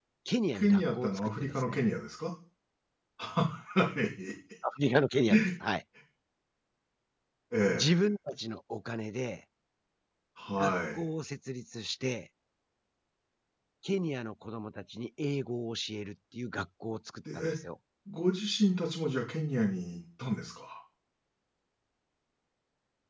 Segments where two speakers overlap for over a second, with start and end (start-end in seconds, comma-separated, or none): 0.5-1.8